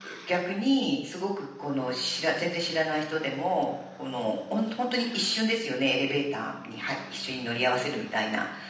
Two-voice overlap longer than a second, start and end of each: none

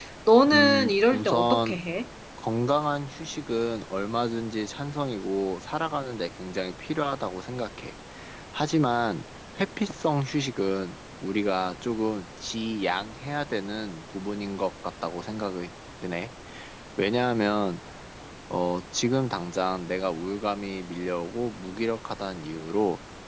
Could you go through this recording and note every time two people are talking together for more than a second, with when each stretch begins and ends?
0.5-1.8

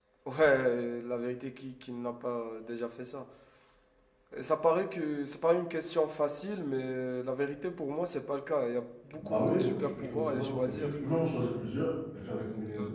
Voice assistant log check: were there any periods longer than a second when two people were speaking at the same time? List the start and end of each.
9.1-10.9

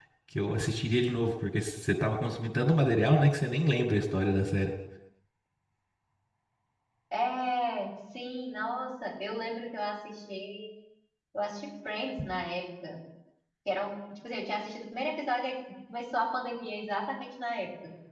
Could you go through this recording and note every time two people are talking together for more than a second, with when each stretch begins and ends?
none

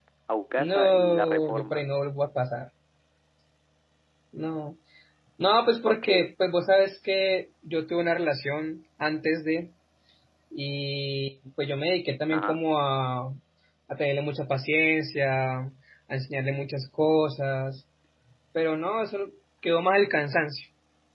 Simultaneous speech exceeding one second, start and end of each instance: 0.6-1.8

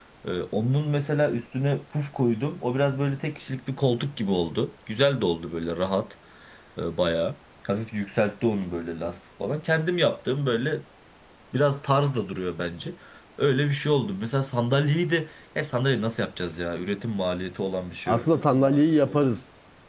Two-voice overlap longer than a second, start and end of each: none

